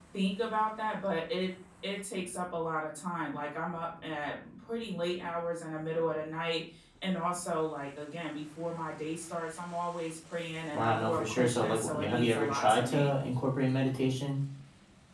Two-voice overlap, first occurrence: 10.7 s

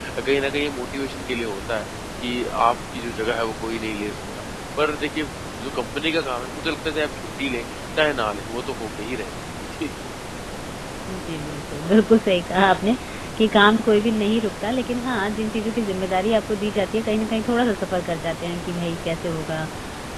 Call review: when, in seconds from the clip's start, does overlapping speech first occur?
none

